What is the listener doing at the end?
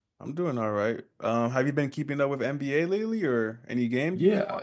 taking over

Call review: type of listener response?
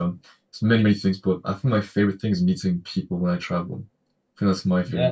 listening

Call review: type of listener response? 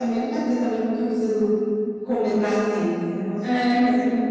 taking over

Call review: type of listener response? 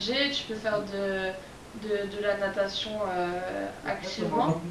taking over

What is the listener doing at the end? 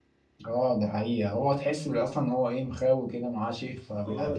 taking over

